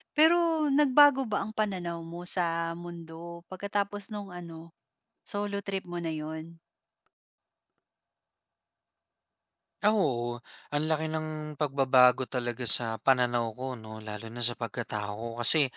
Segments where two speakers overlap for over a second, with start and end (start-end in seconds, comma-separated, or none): none